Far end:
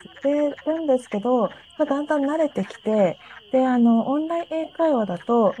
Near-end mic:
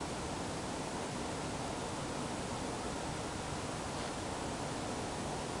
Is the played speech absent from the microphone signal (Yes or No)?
Yes